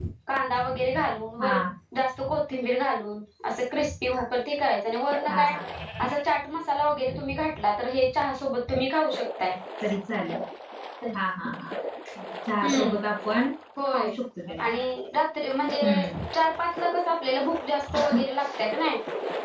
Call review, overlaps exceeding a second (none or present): none